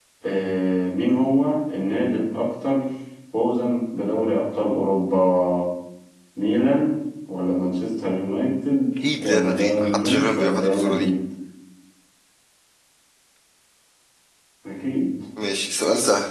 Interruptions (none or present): present